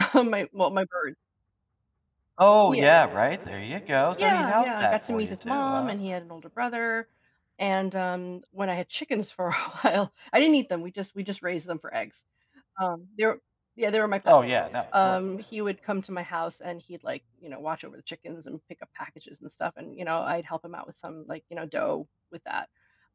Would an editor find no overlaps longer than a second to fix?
No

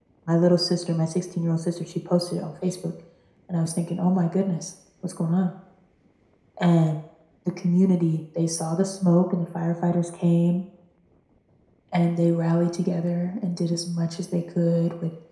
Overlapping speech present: No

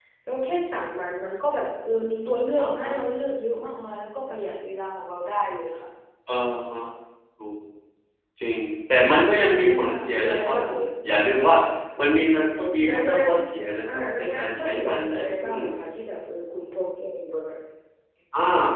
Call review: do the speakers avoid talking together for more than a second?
No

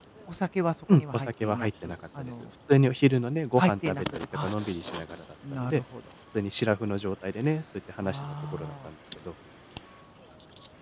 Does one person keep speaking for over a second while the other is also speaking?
Yes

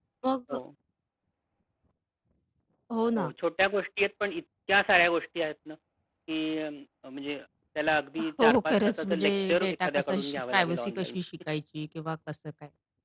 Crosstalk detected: Yes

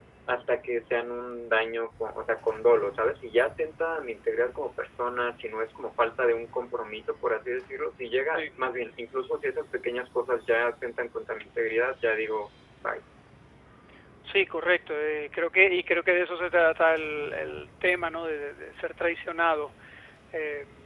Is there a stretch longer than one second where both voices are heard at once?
No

